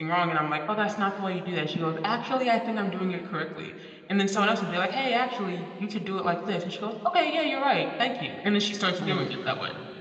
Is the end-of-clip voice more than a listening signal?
Yes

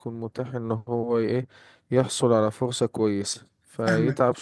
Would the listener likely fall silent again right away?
No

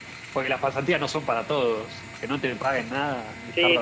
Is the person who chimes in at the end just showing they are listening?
No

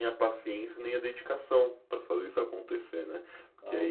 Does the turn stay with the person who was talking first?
Yes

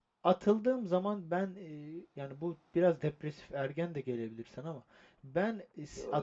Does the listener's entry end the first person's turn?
No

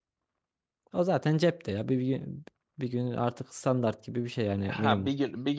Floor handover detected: Yes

